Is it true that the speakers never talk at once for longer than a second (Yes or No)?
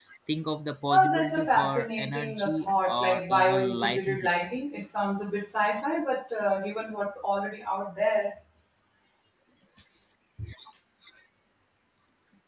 No